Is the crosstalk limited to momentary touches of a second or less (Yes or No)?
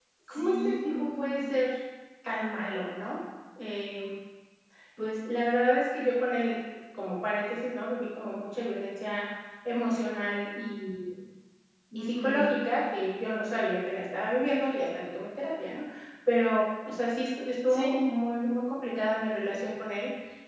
No